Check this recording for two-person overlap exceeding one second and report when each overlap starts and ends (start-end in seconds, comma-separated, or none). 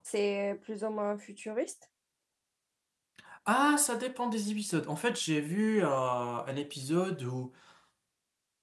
none